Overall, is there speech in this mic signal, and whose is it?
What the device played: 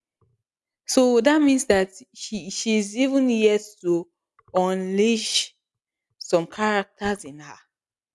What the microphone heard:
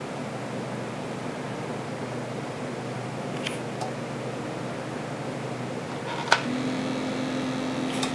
neither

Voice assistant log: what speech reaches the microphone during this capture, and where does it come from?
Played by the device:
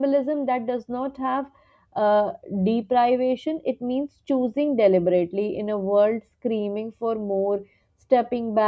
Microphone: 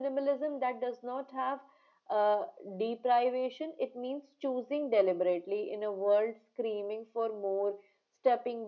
echo only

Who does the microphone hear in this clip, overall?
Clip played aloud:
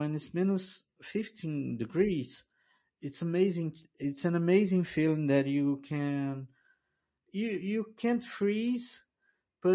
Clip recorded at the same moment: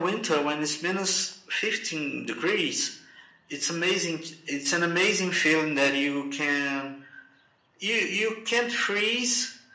echo only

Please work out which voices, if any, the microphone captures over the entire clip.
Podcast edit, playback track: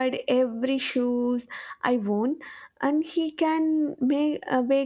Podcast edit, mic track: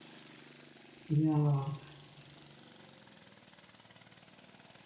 user only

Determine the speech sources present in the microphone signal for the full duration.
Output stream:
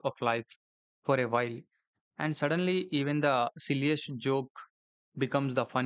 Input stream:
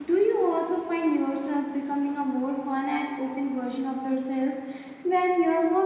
user only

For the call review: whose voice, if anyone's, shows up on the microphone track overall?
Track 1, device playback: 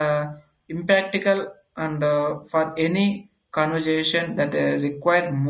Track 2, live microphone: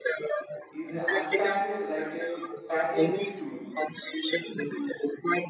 both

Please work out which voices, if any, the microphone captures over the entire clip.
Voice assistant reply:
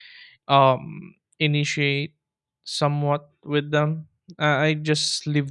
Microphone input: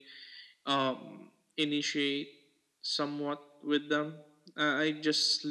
echo only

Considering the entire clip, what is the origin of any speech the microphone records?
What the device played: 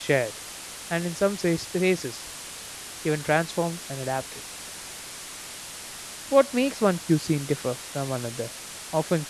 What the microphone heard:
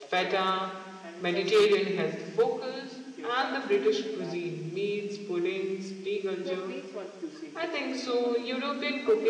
both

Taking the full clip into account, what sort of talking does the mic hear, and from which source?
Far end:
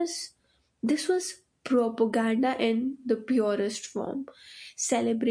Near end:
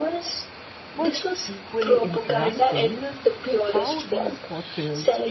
both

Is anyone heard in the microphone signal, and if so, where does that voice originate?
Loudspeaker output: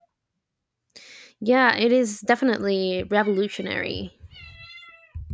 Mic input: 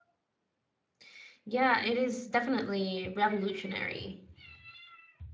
echo only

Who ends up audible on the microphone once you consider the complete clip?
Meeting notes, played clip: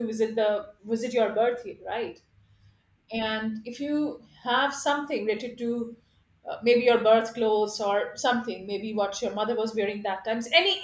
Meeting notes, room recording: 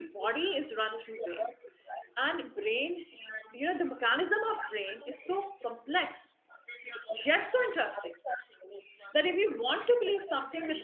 both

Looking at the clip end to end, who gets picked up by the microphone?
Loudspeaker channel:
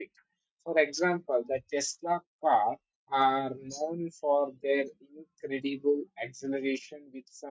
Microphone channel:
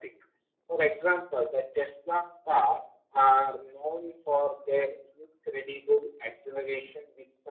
echo only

